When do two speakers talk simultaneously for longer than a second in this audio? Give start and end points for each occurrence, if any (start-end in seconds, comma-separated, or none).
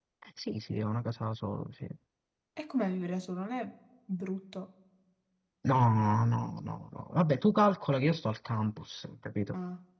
none